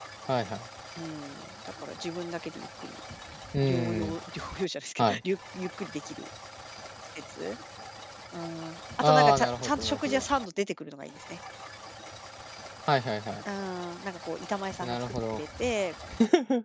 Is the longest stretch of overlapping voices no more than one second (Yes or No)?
No